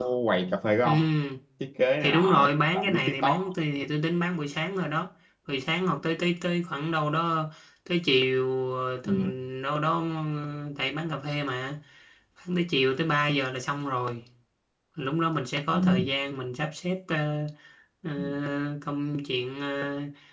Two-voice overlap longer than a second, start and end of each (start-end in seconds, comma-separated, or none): 2.0-3.4